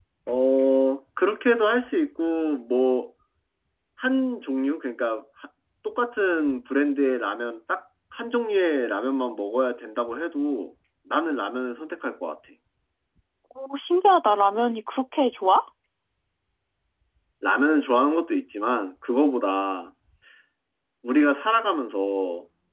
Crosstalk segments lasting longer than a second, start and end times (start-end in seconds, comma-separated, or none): none